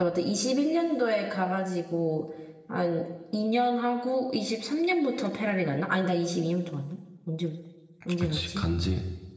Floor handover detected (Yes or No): Yes